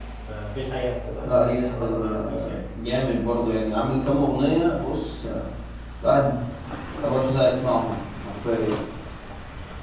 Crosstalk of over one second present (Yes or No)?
Yes